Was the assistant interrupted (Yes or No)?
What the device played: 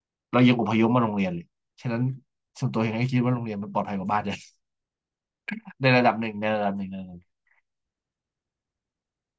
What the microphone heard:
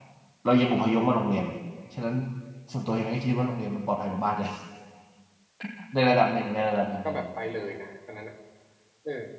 Yes